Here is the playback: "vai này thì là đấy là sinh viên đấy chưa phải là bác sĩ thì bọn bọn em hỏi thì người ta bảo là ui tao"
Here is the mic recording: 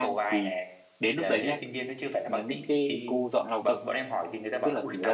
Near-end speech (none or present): present